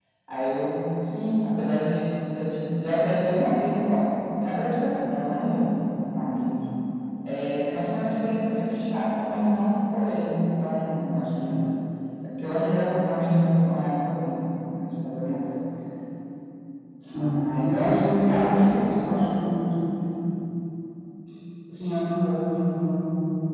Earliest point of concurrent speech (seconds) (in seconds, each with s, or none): 17.1 s